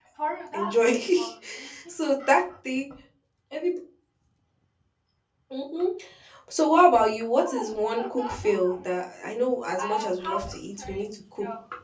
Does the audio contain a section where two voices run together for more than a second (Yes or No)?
Yes